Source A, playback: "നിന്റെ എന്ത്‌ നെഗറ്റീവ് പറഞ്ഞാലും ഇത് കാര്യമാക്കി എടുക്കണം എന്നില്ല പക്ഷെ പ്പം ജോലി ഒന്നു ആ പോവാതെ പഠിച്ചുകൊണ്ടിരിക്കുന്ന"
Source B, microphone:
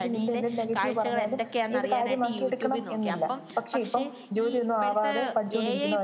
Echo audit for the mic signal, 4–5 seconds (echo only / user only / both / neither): both